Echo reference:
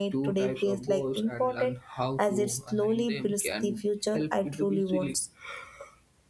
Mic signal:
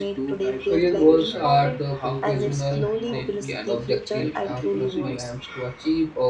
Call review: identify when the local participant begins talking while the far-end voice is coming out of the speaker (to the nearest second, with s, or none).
1 s